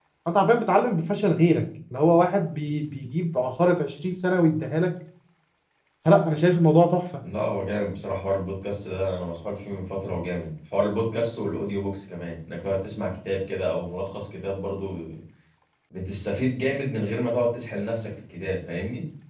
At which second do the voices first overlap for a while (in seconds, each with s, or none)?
none